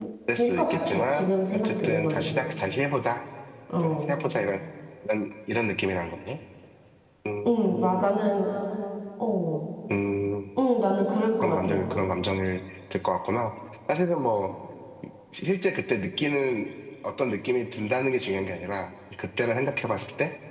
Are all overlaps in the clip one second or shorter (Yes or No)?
No